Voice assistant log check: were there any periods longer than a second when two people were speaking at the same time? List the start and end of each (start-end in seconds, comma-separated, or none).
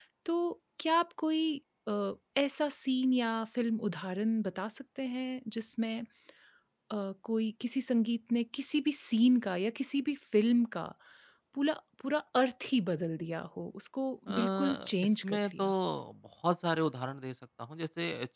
14.3-15.7